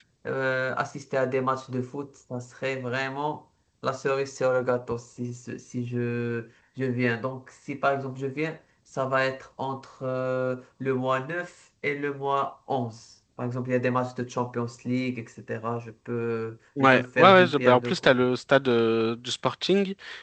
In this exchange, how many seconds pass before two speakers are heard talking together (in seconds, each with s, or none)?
16.8 s